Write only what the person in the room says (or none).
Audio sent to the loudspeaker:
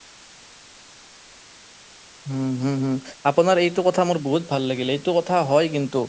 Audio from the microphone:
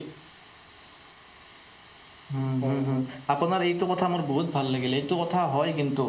হয় হয়